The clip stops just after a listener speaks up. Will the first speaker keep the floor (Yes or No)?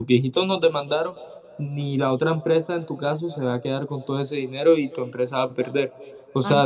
No